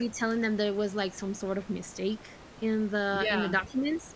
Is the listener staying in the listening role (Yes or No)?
Yes